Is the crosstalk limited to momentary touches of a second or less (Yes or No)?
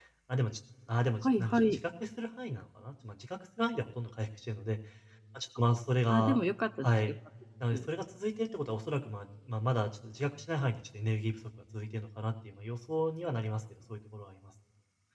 Yes